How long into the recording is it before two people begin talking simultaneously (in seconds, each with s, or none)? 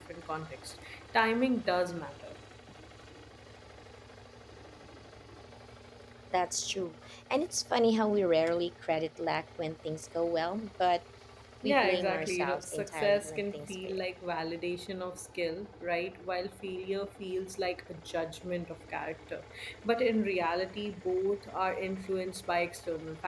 11.6 s